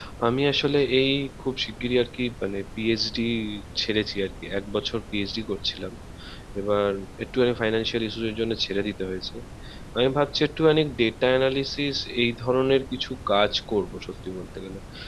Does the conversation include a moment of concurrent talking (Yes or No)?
No